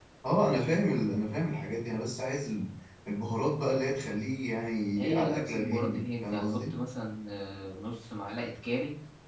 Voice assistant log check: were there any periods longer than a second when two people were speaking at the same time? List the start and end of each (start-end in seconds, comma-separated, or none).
5.0-6.8